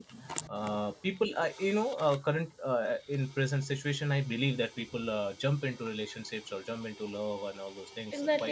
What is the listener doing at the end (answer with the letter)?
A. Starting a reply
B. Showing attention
A